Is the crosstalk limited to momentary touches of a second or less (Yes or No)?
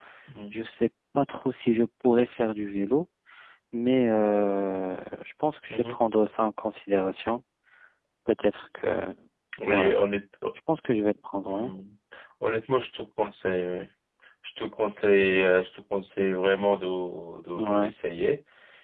Yes